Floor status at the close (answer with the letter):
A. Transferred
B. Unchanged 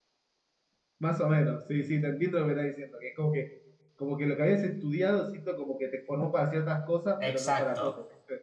A